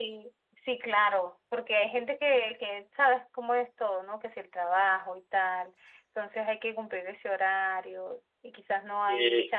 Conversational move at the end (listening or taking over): listening